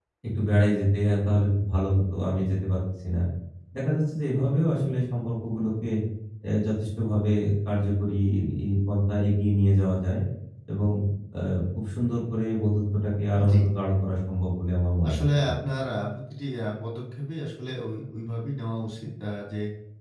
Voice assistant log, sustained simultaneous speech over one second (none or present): none